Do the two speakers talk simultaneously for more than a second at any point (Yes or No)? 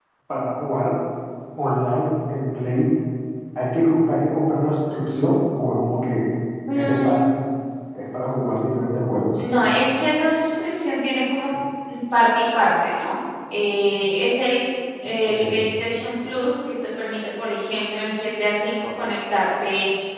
No